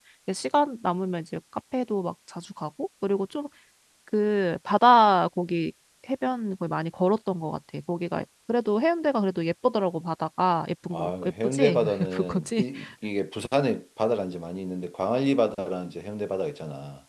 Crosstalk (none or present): present